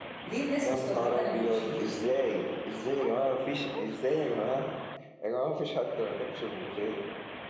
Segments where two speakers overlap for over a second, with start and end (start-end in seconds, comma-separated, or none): 0.6-1.9